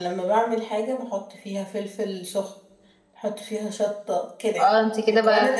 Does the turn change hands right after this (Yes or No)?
Yes